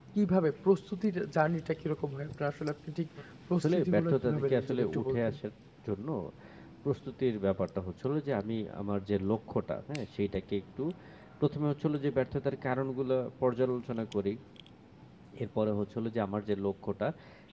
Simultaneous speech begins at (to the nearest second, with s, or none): 4 s